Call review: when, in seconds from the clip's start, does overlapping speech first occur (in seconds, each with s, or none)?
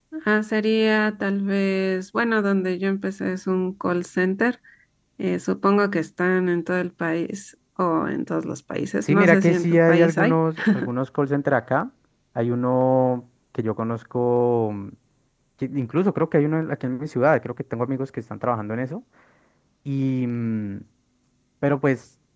9.1 s